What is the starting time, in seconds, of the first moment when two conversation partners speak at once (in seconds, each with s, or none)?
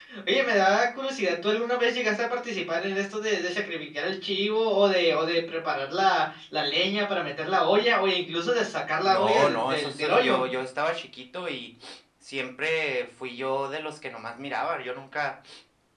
9.0 s